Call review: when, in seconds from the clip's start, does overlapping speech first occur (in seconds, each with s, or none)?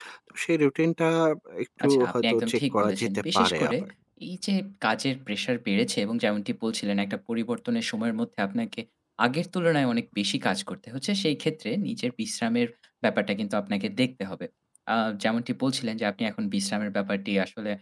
1.8 s